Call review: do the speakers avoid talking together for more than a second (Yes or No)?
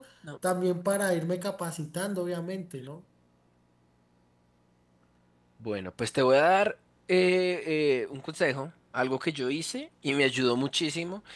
Yes